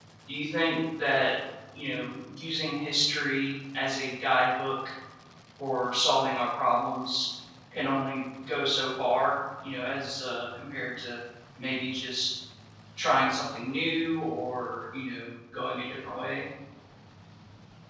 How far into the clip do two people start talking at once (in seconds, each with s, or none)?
none